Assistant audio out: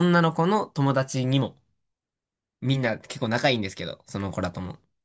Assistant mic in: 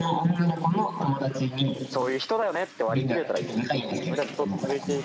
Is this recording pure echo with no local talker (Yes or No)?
No